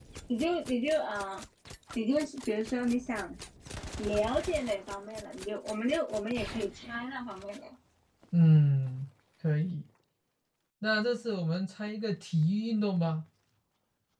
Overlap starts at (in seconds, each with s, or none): none